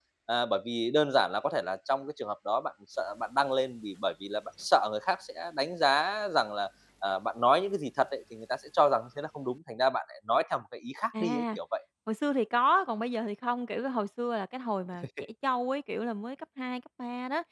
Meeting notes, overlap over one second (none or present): none